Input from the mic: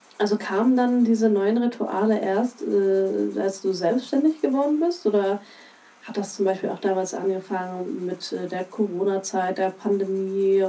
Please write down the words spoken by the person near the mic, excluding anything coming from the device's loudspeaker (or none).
none